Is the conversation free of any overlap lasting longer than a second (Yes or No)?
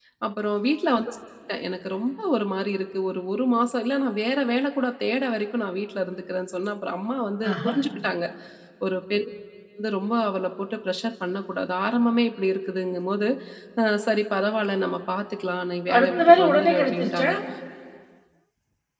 No